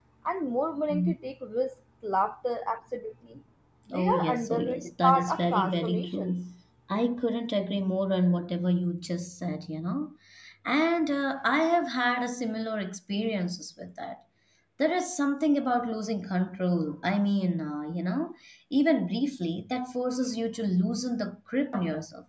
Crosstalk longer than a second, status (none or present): present